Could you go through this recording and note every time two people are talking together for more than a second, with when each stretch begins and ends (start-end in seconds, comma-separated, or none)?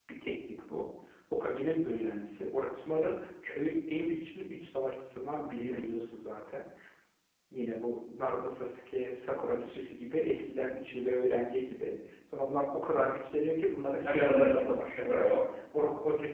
14.0-15.3